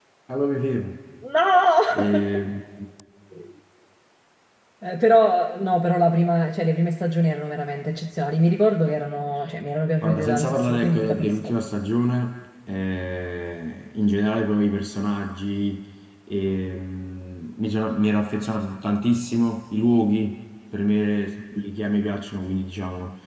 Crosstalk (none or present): present